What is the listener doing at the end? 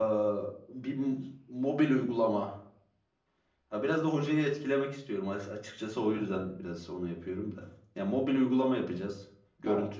listening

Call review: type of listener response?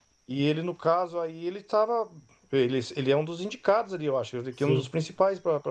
listening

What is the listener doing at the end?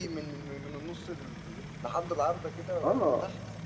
taking over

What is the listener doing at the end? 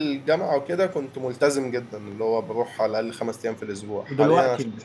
listening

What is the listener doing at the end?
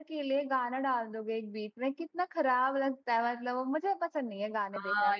taking over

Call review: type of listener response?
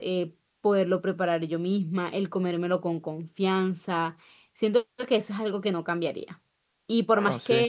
listening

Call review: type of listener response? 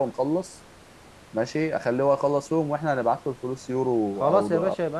taking over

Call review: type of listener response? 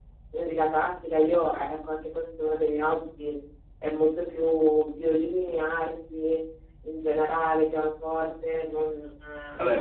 taking over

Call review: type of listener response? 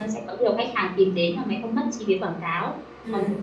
listening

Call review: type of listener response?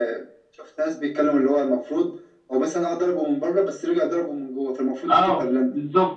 taking over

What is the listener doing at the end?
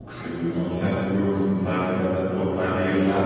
taking over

